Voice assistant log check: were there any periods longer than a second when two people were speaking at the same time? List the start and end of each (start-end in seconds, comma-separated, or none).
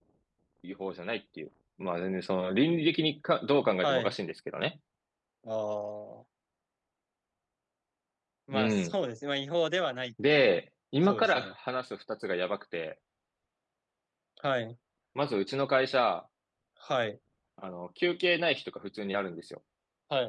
none